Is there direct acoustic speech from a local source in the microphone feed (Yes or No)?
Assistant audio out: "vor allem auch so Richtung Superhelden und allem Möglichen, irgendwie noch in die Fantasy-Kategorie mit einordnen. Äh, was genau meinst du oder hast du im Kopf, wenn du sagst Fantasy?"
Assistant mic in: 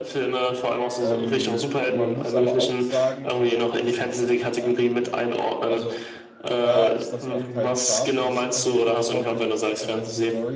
Yes